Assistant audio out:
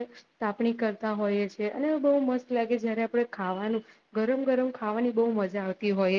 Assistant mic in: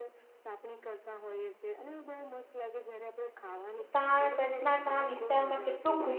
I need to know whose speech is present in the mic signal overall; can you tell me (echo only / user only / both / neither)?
both